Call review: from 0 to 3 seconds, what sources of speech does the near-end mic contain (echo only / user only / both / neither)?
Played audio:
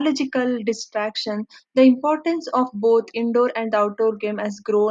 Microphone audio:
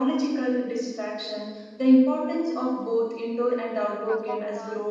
echo only